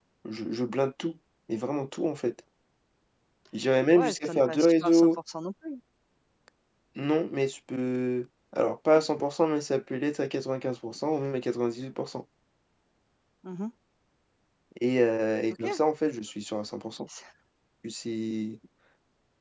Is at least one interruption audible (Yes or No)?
Yes